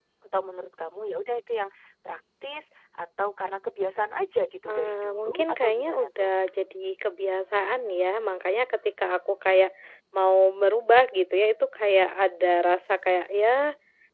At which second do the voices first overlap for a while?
5 s

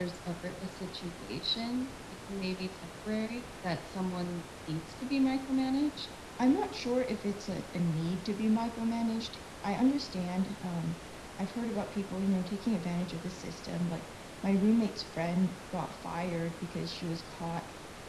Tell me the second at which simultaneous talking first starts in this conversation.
none

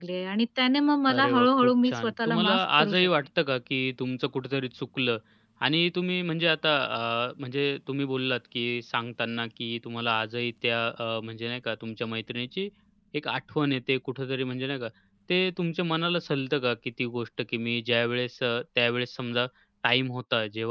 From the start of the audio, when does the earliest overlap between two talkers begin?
1 s

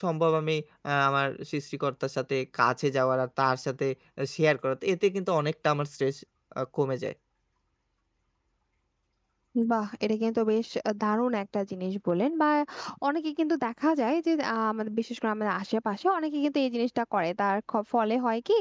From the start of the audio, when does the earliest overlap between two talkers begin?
none

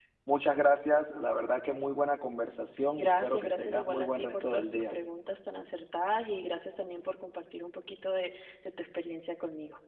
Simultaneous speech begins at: 3 s

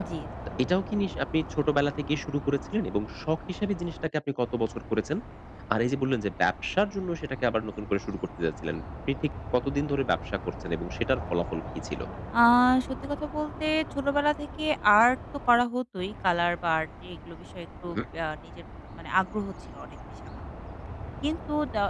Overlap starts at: none

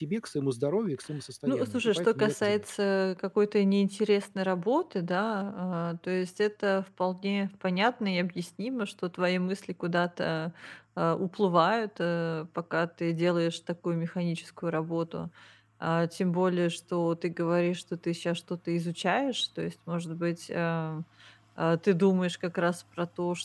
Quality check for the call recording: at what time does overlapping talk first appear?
1 s

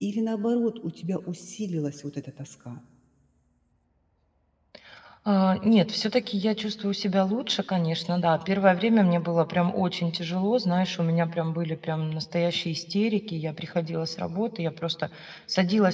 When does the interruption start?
none

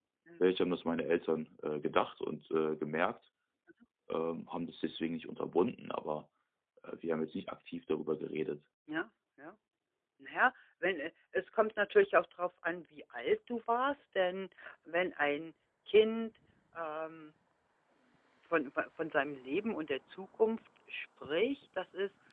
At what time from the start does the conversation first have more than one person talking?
none

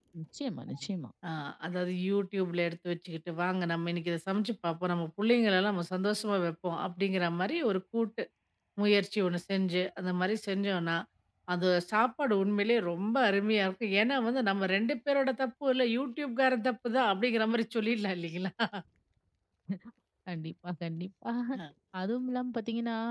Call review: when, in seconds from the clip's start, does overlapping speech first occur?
none

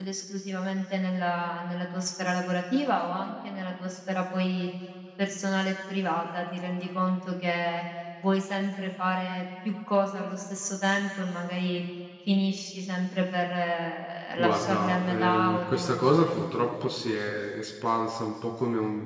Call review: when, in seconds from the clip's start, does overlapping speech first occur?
14 s

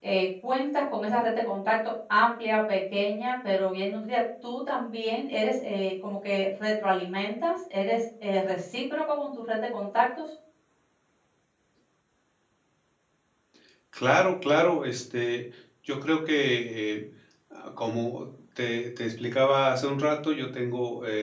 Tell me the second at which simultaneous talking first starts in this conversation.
none

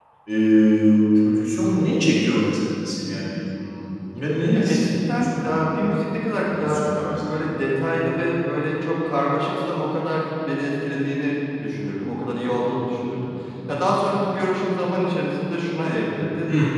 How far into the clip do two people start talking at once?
5 s

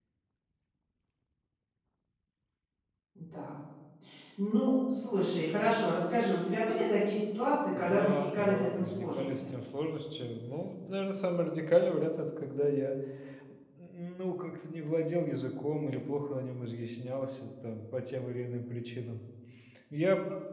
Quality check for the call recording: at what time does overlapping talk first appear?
8 s

